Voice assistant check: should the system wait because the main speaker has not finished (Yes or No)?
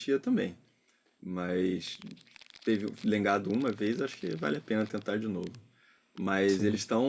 Yes